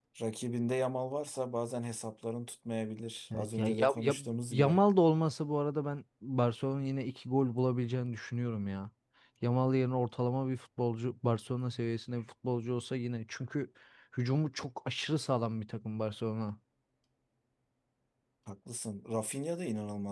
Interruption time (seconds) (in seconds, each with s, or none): 3.3 s